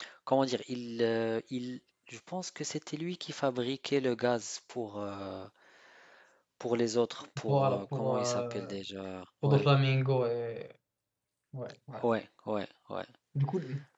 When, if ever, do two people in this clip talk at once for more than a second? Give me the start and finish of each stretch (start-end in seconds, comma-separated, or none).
7.5-8.7